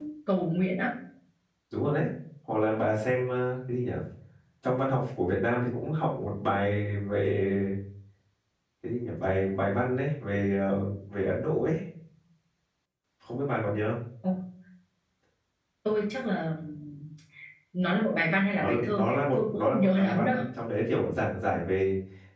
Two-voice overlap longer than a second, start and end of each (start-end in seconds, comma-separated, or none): 18.6-20.4